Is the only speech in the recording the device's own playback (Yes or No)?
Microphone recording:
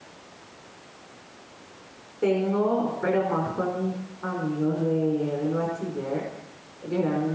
No